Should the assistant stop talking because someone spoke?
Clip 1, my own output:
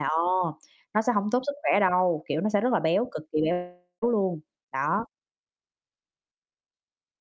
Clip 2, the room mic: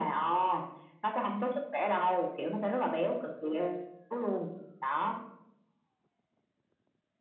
No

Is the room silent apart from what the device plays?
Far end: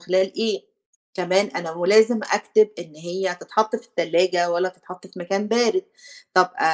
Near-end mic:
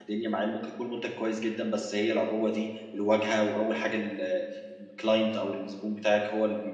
No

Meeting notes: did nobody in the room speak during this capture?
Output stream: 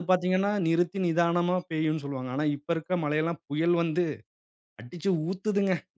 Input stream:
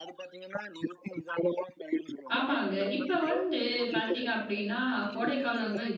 No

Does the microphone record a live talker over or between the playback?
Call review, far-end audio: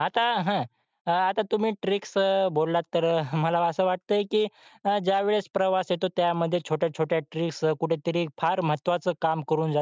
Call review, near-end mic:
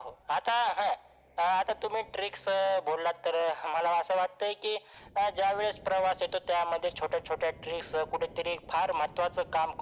No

